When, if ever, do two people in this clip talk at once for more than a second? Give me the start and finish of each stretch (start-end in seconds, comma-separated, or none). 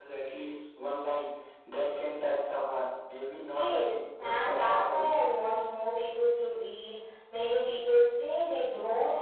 3.5-5.1